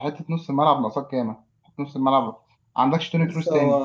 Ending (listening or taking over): taking over